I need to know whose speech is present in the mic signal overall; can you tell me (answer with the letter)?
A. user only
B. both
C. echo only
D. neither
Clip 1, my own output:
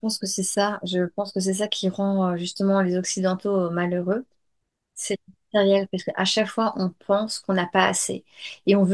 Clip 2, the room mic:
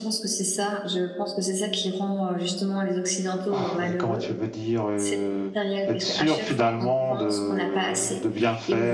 B